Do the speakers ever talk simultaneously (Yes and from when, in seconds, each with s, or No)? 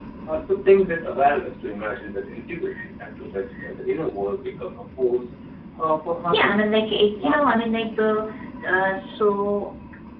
Yes, from 6.3 s